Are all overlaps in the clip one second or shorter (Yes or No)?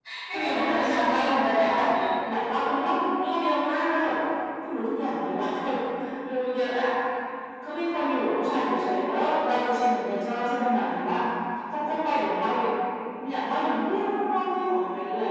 No